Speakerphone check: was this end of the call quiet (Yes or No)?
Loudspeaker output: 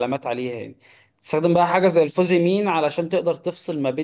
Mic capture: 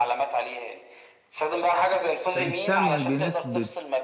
No